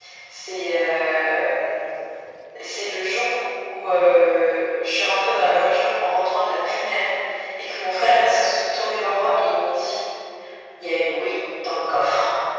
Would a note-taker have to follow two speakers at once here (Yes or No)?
No